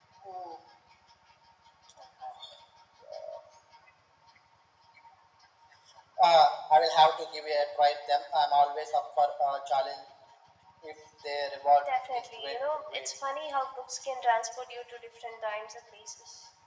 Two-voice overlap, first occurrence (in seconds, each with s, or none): 11.8 s